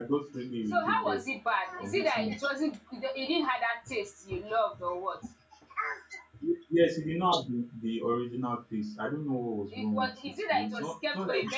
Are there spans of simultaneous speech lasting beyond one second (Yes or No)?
Yes